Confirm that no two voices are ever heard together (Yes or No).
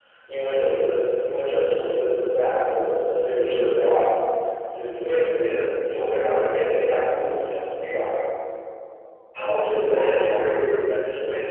Yes